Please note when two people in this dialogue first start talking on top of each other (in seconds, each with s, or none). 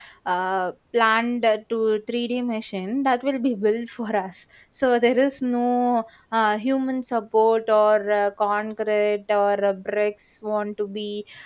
none